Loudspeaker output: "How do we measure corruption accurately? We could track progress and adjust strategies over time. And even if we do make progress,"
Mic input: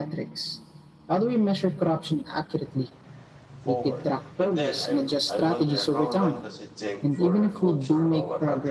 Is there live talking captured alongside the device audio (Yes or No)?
Yes